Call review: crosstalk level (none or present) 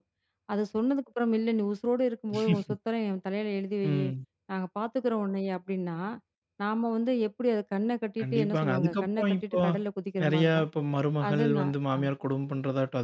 present